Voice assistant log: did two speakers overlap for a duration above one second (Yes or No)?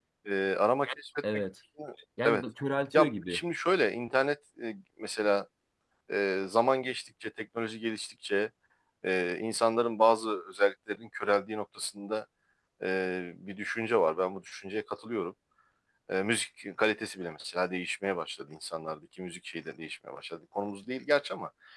No